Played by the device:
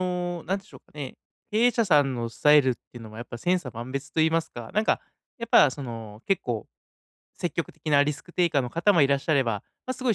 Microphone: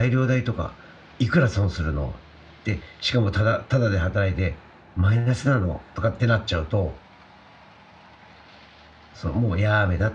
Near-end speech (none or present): present